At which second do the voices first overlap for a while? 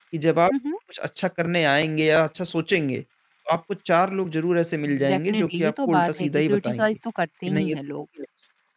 5 s

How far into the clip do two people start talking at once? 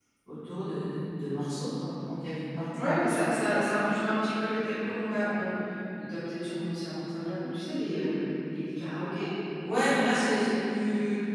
none

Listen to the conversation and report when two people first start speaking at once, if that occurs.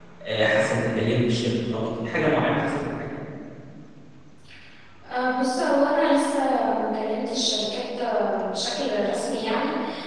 none

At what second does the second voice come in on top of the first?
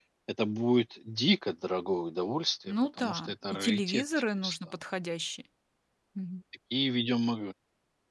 3 s

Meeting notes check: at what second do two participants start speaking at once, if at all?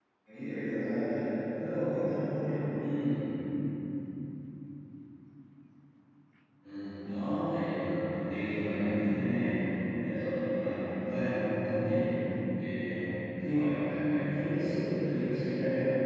none

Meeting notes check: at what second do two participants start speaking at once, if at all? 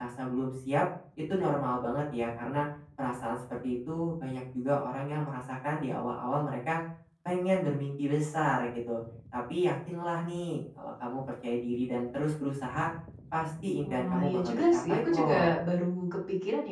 14 s

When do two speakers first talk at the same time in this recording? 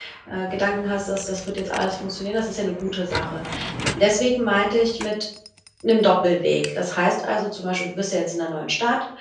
none

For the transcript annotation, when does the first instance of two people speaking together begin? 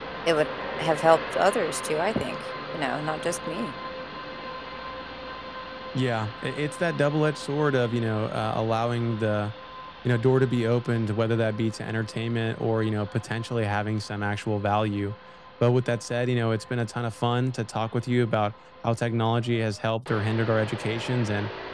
none

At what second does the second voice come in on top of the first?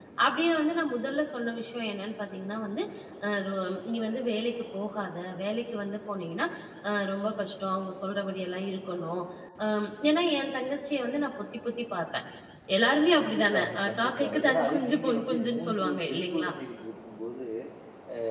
13 s

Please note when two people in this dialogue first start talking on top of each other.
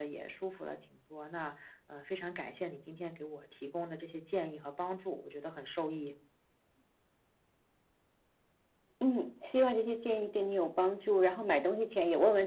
none

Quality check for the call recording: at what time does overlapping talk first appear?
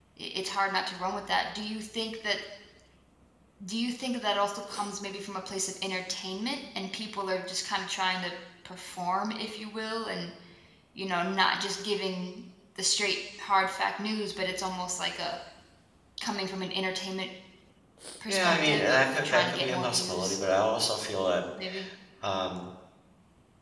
18 s

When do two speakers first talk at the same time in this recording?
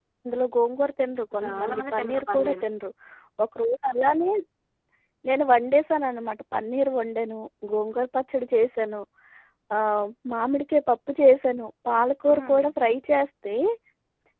1 s

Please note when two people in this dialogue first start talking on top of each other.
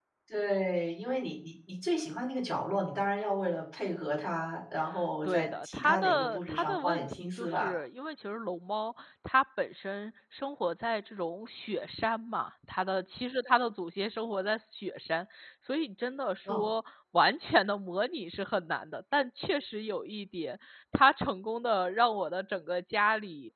5 s

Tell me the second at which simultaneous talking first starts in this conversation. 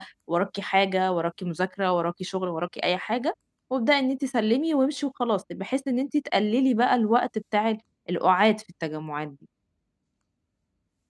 none

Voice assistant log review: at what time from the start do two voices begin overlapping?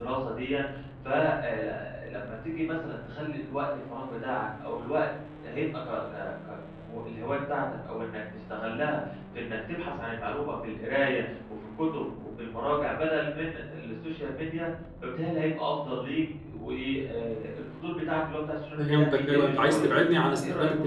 19 s

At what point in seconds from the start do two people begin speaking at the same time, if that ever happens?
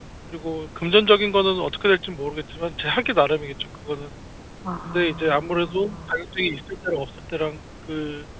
5 s

